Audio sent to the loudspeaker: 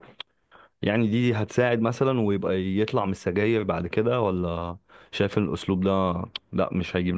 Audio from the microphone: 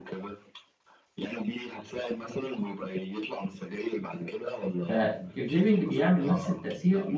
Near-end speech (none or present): present